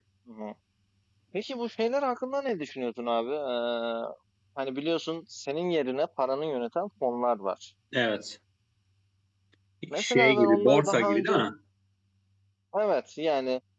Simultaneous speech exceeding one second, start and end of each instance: 9.9-11.4

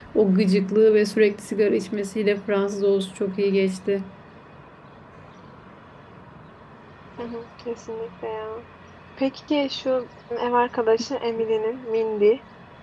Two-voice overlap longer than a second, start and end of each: none

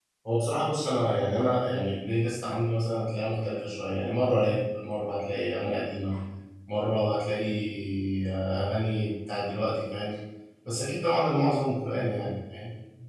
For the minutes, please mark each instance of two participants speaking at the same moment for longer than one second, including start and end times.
none

